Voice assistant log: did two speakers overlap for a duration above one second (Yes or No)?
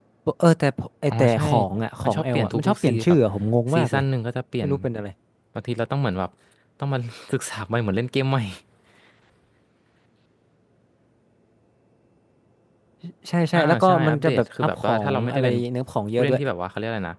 Yes